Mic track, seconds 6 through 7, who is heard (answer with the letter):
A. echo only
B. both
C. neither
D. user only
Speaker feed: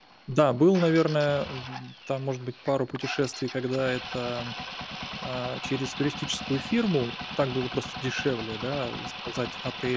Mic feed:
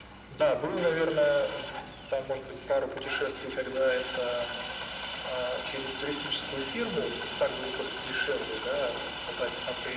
A